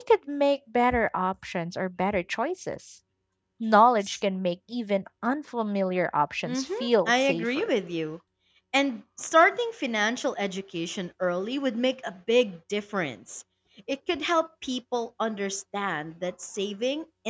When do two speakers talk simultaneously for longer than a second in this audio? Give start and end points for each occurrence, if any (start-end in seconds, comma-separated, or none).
6.5-7.7